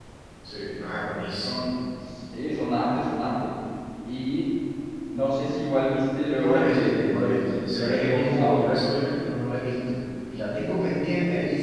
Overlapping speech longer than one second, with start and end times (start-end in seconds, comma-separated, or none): 6.3-8.7